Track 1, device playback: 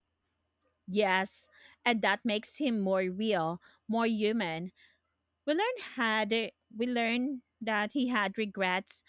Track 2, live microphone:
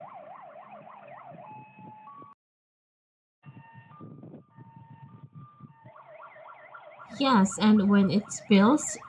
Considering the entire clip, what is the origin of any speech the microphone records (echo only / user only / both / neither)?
user only